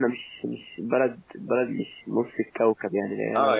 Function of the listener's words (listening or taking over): taking over